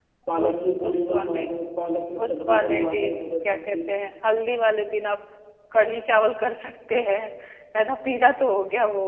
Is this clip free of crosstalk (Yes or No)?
No